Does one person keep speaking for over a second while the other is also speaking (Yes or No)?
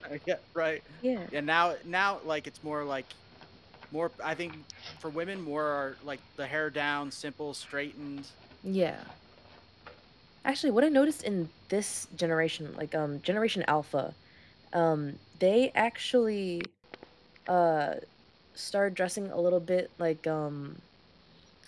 No